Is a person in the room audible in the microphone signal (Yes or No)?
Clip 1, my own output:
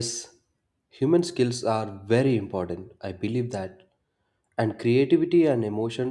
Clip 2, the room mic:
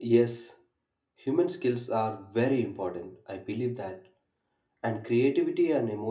No